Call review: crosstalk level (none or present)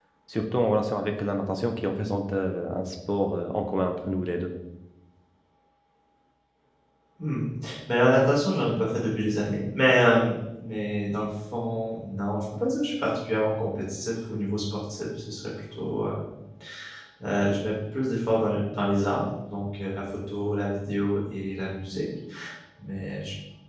none